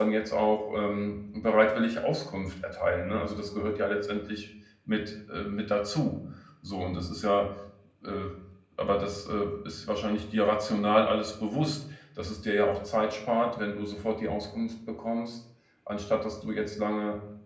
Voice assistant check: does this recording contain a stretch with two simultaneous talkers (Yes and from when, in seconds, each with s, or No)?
No